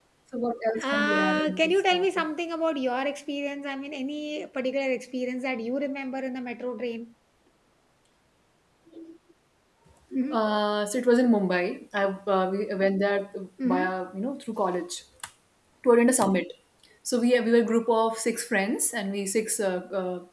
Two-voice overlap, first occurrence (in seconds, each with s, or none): 0.9 s